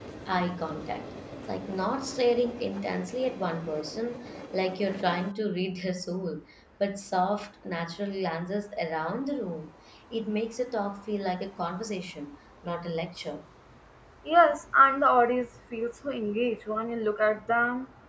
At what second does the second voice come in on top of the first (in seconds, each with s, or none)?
none